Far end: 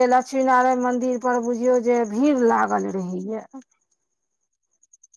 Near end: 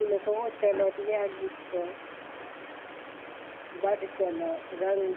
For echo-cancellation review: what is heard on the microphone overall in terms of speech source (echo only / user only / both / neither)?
user only